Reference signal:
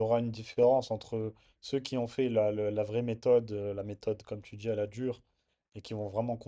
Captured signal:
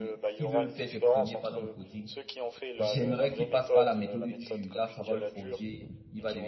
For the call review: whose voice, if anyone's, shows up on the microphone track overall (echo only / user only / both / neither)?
both